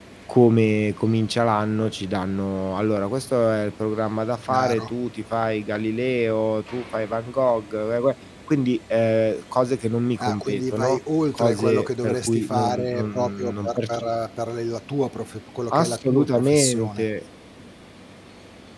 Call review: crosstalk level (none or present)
present